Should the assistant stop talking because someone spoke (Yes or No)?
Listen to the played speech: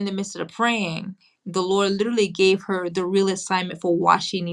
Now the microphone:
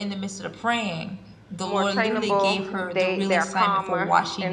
Yes